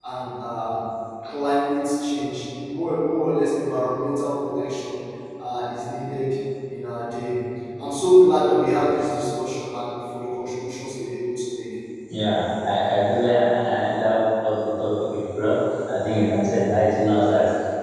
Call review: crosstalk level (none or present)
none